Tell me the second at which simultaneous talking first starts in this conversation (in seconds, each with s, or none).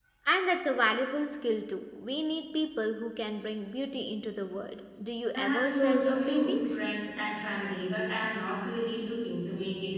5.3 s